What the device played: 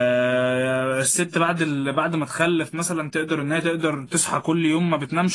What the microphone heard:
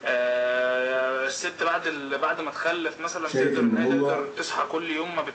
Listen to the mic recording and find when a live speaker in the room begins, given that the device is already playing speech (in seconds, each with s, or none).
3.2 s